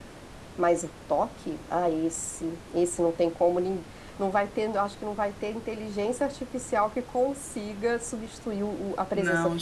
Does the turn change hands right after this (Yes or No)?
Yes